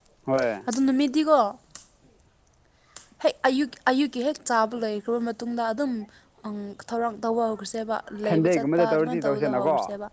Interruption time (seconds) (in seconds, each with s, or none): 8.2 s